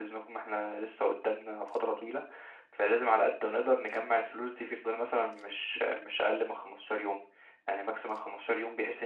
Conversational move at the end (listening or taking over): listening